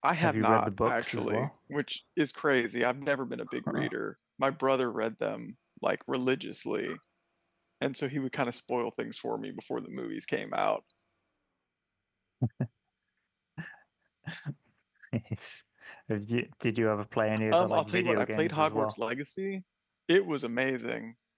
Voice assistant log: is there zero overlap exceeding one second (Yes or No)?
No